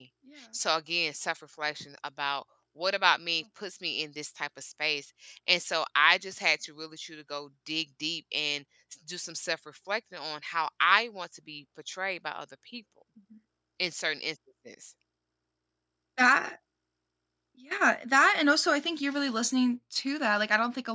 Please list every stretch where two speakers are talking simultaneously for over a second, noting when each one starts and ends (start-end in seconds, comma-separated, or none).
none